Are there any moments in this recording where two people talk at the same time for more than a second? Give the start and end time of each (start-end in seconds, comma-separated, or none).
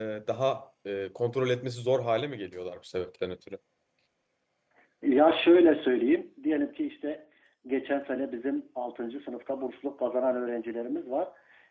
none